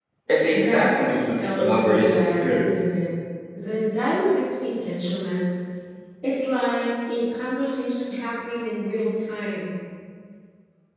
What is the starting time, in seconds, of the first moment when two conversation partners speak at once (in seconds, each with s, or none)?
0.5 s